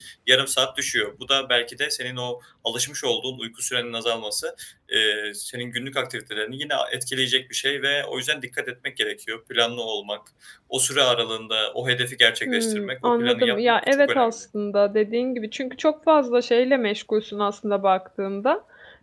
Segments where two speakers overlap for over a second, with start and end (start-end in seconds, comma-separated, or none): 12.4-14.3